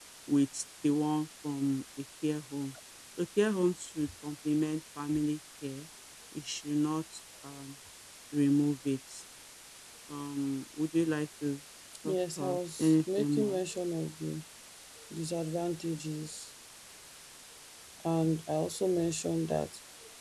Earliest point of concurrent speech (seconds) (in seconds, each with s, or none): 12.1 s